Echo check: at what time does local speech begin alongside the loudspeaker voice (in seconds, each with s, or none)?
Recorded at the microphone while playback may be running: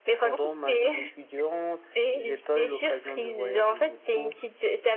none